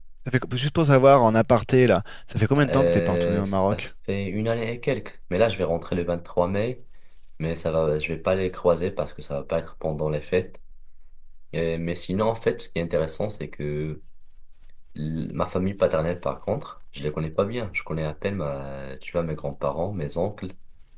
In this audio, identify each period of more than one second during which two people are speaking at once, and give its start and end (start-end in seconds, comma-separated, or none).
2.7-3.9